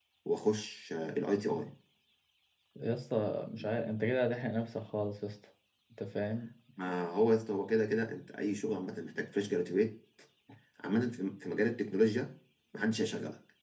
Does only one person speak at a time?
Yes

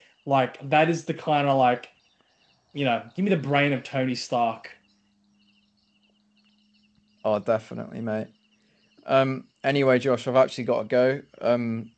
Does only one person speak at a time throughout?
Yes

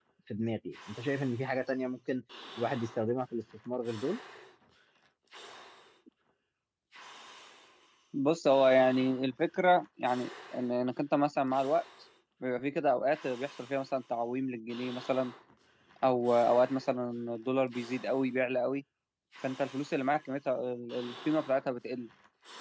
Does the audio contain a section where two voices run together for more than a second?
No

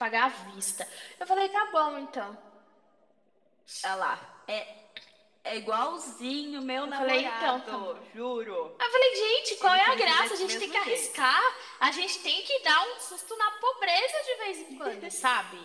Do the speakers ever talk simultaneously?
Yes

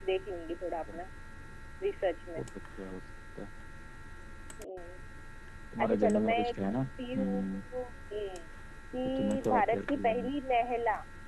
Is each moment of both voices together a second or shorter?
No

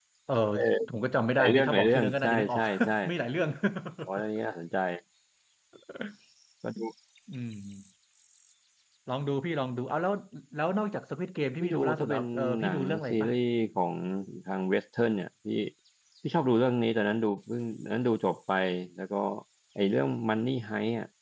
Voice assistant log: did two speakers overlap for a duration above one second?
Yes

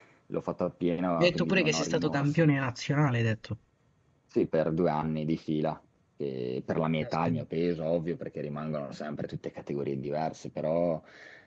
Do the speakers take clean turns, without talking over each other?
No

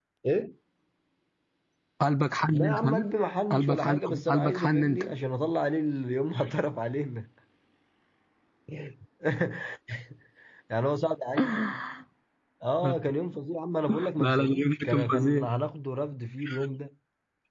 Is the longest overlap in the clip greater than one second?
Yes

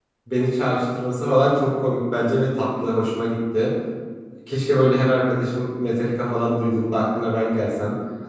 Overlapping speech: No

